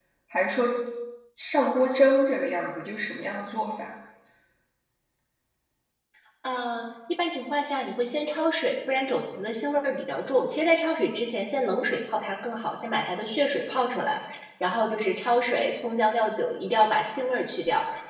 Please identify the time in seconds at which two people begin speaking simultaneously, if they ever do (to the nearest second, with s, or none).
none